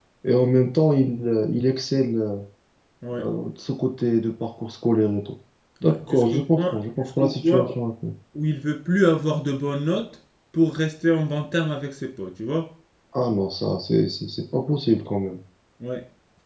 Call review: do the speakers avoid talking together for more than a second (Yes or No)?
No